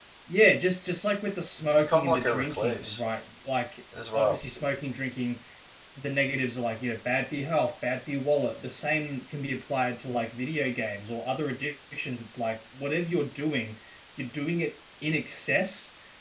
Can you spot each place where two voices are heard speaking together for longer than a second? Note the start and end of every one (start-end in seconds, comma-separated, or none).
1.7-3.0